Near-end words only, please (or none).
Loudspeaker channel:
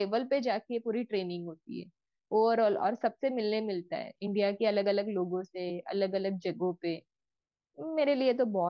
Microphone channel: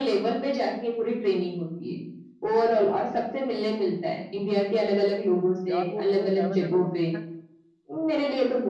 यार वो जो अवेलेबल होता है